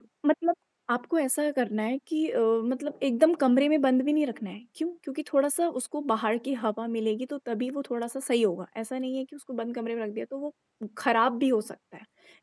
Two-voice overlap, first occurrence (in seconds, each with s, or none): none